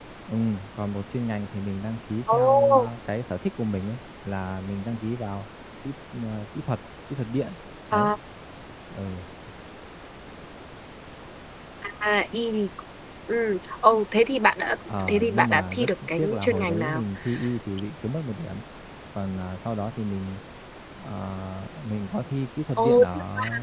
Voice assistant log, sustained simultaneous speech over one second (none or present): present